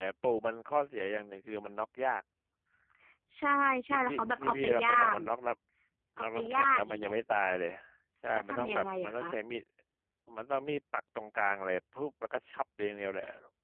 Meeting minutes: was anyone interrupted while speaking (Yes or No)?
Yes